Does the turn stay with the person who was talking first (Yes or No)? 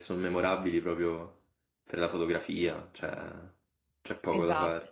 No